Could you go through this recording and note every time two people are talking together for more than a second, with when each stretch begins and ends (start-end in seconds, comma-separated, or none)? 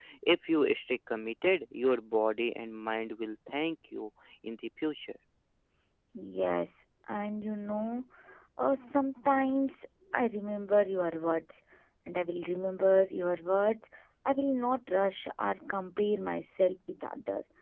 none